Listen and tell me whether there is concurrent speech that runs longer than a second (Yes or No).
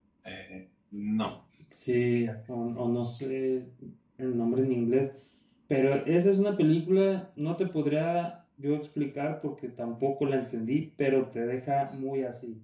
No